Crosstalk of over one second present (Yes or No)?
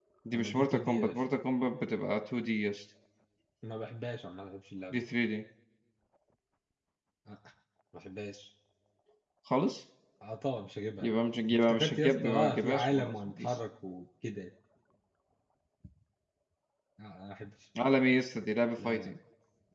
Yes